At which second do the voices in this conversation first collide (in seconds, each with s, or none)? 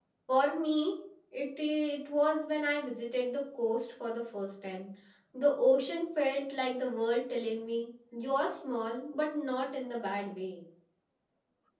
none